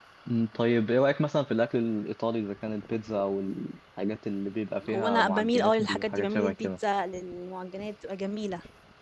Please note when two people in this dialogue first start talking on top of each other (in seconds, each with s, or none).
4.9 s